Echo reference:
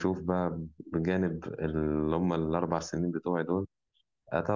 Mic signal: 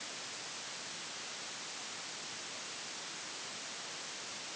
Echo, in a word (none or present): none